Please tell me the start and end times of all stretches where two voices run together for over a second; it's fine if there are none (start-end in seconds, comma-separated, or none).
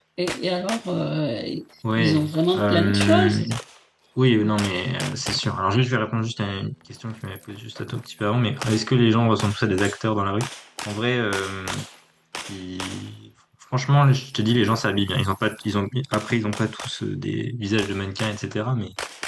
2.0-3.4